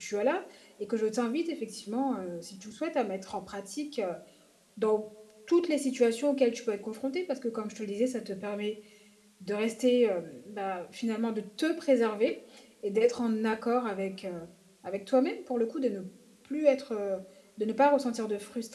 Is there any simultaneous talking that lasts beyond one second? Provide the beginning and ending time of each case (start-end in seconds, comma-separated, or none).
none